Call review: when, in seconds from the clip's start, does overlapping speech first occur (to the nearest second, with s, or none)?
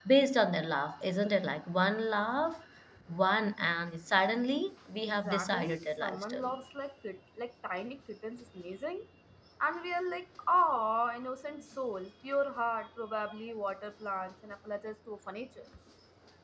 5 s